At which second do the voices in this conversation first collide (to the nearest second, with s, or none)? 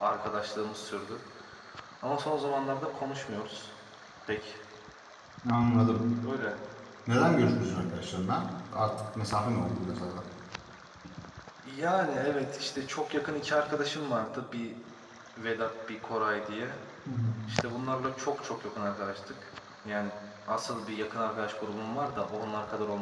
none